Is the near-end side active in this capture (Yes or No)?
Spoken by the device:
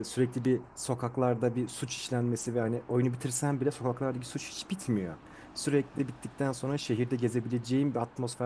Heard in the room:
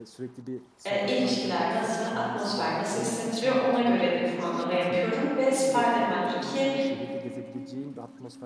Yes